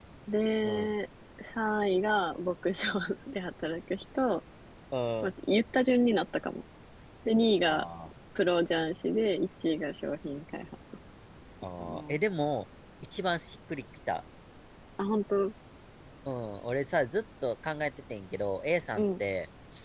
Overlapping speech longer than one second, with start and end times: none

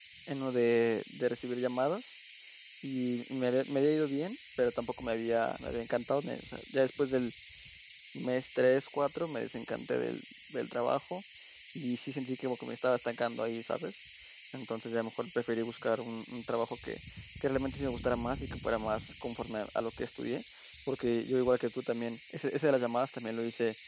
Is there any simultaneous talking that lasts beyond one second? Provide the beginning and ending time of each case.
none

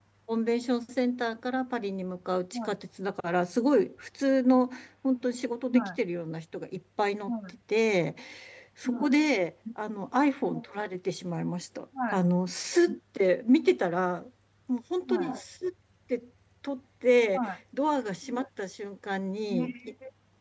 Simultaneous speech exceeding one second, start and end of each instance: none

